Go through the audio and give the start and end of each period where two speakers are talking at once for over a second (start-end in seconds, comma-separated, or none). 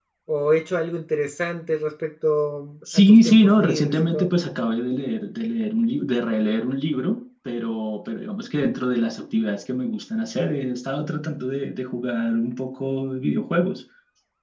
2.9-4.3